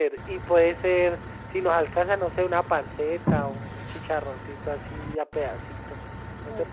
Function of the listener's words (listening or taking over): taking over